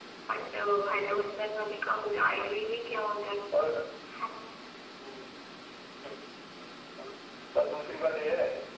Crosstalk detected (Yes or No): No